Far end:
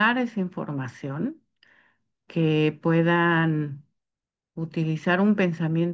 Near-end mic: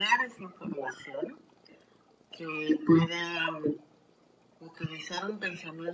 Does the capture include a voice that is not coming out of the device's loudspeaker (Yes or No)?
No